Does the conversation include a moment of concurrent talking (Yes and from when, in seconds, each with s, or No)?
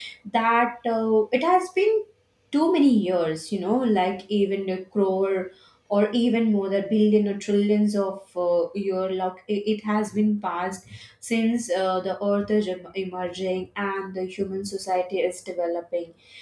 No